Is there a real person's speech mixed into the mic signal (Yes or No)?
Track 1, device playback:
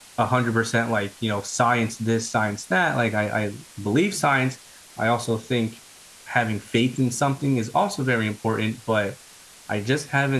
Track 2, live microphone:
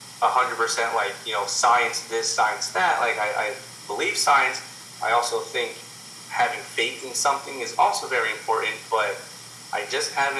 No